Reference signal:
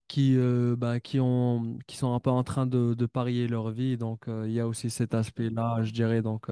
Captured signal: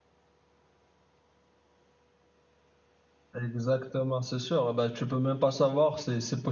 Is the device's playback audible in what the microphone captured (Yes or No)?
No